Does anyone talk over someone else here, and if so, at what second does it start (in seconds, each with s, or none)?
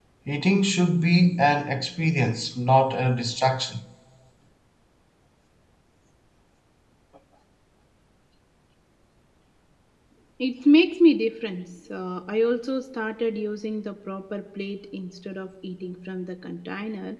none